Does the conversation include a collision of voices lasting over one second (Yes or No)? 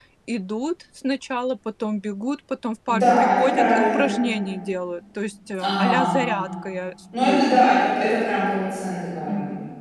Yes